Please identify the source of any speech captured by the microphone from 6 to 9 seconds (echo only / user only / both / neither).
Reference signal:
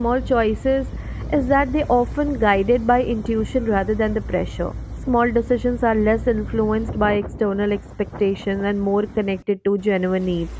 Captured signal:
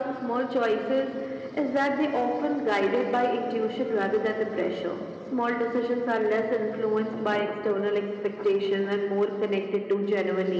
echo only